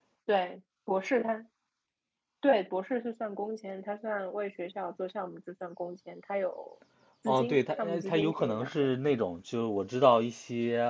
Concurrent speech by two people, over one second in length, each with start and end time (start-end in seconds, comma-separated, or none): 7.3-8.7